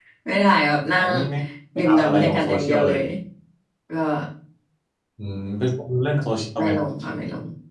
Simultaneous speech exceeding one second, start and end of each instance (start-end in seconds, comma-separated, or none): 1.8-3.0